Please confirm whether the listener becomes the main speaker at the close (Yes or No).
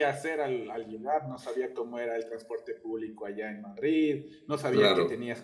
No